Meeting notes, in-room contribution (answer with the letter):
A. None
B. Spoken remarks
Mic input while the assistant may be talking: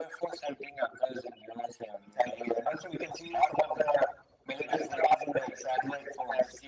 A